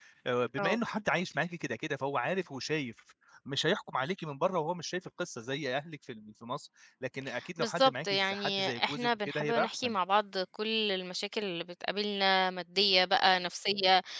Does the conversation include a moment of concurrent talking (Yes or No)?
Yes